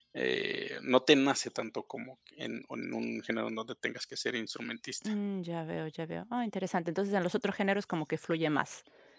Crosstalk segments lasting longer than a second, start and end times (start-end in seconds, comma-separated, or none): none